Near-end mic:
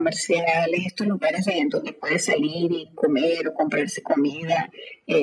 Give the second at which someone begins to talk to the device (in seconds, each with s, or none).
none